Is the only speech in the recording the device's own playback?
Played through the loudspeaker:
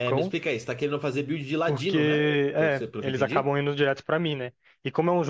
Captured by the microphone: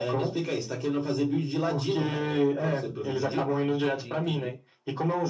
No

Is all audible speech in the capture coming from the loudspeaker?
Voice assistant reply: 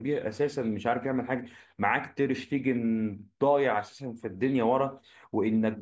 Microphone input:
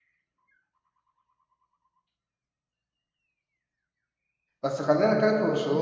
No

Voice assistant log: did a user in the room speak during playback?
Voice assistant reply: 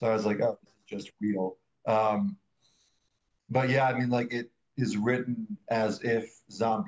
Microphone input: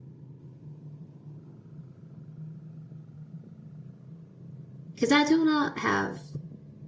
Yes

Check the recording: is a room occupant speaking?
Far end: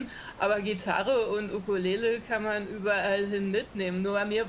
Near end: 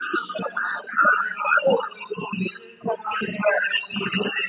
No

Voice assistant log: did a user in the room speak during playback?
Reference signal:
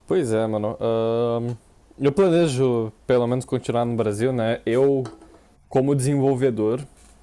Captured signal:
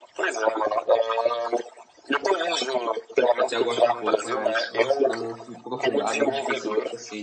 Yes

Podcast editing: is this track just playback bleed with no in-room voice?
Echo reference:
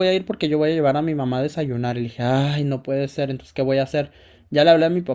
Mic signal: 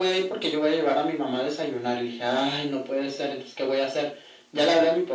Yes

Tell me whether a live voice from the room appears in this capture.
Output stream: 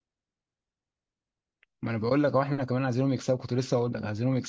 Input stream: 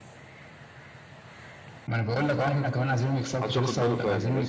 Yes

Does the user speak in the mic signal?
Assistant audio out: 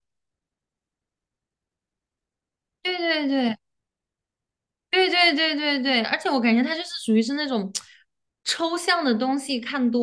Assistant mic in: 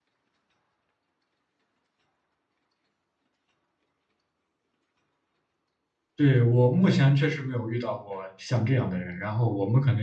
Yes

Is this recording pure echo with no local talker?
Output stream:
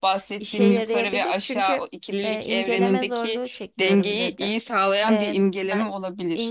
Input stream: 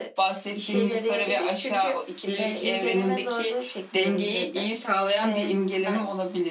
Yes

